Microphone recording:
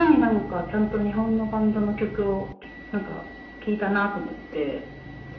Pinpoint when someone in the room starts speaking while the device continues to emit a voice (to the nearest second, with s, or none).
none